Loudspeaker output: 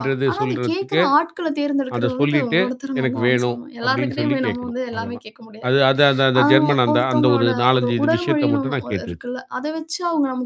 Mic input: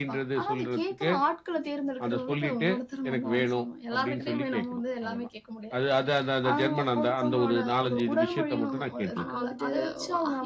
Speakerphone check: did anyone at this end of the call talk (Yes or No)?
Yes